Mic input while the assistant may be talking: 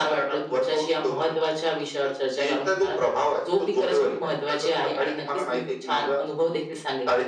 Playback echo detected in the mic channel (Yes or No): Yes